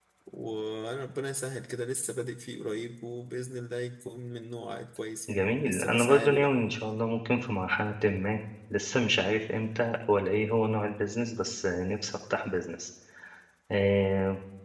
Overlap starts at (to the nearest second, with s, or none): 5 s